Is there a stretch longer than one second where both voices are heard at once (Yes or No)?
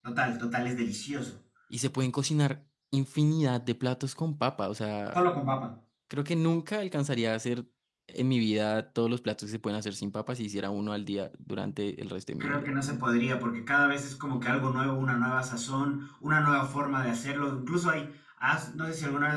No